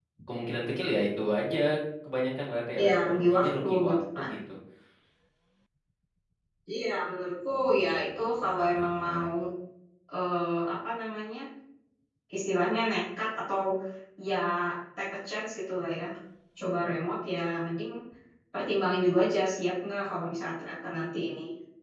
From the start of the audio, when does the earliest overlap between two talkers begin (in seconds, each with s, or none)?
2.8 s